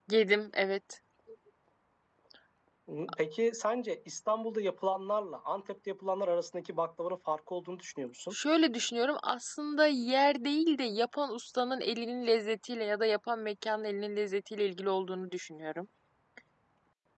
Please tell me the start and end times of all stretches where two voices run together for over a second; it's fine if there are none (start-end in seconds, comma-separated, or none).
none